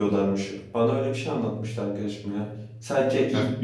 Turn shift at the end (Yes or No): Yes